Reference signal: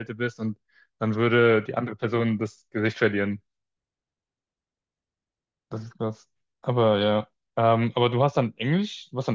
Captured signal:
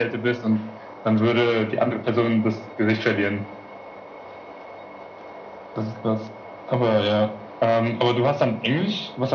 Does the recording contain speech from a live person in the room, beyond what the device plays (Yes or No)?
No